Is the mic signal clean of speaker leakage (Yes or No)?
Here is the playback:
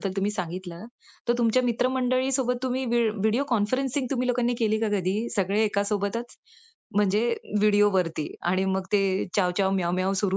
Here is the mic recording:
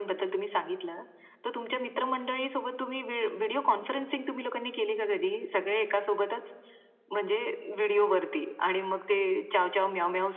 No